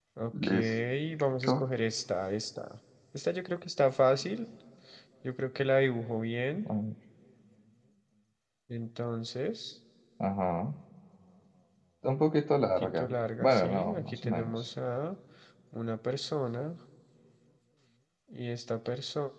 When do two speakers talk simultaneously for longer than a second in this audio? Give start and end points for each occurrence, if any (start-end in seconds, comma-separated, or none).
12.7-14.6